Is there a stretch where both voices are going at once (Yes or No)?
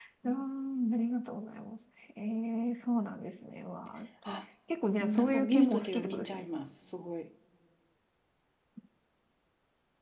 Yes